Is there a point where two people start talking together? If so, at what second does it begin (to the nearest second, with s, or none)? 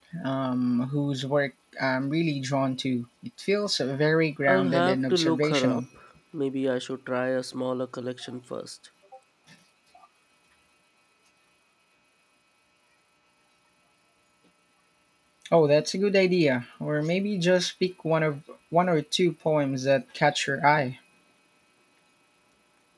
4 s